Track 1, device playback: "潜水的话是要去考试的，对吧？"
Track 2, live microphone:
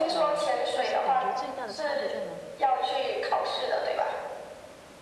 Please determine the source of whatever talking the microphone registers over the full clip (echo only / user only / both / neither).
both